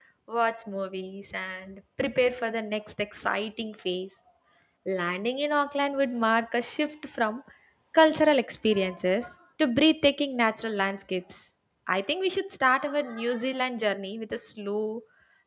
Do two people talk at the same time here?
No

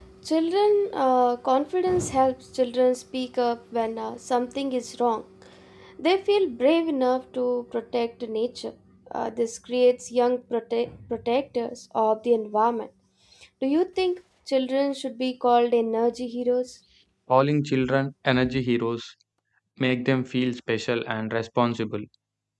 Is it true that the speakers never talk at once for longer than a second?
Yes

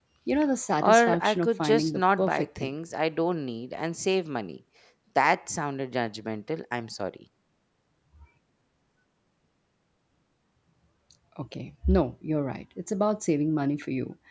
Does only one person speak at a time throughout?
No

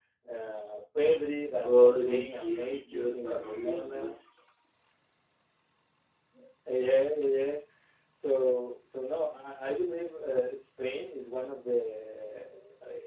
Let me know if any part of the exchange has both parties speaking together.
Yes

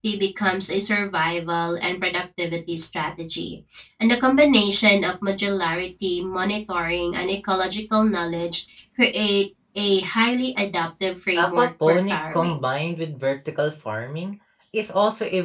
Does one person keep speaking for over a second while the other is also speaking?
Yes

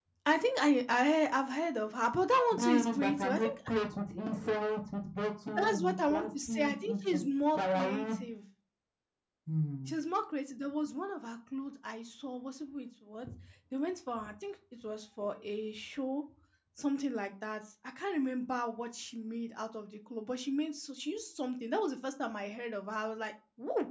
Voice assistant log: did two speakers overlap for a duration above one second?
Yes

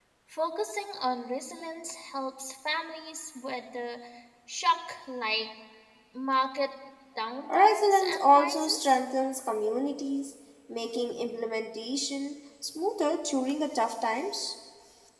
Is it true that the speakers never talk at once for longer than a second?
No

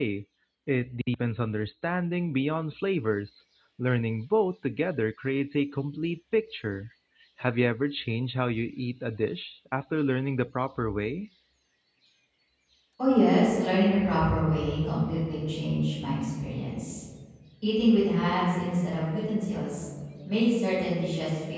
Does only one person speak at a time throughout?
Yes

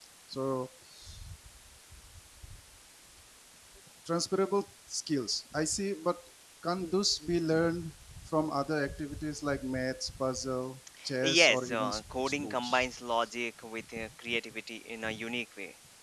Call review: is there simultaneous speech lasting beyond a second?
Yes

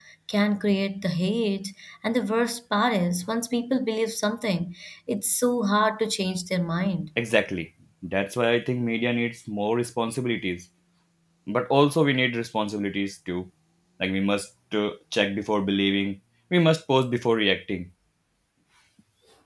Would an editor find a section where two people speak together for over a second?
No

